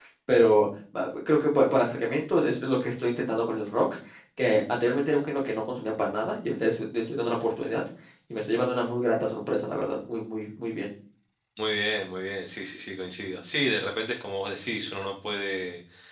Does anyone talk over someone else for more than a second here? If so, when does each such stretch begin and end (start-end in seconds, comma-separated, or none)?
none